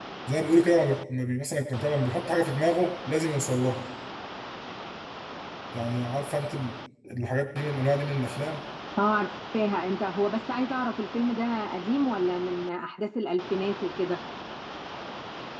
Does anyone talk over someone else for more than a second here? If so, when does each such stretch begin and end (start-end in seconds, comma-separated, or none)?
none